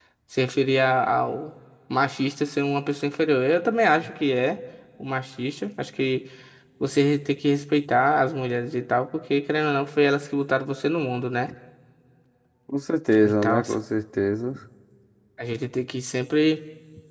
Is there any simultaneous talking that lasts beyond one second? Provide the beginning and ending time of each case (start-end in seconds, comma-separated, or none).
none